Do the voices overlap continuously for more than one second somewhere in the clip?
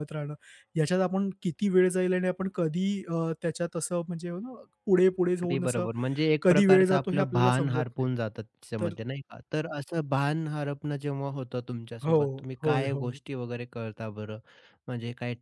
Yes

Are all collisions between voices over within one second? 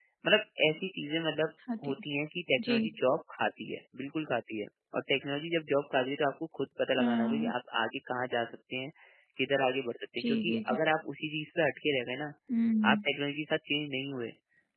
Yes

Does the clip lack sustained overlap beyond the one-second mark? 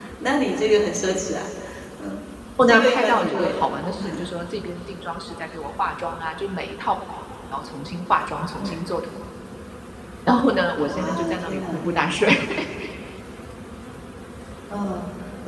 No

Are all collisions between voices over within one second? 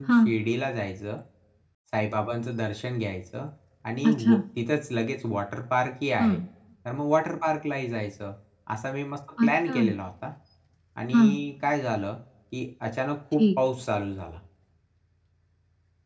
Yes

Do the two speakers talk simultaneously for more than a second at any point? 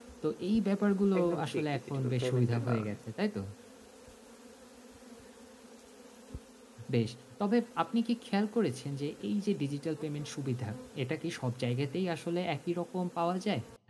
Yes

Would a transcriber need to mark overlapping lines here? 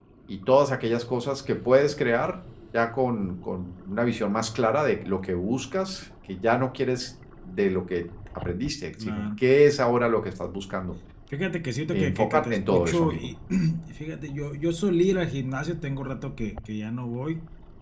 Yes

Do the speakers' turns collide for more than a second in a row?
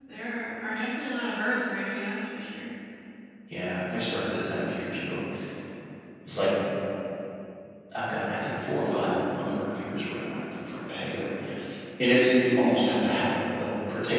No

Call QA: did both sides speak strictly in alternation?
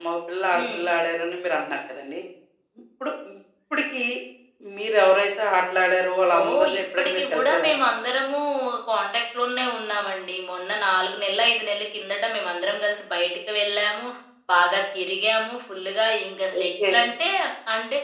No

